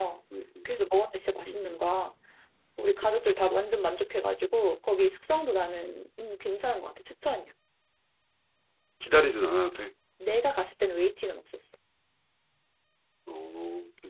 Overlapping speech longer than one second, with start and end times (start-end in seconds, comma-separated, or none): none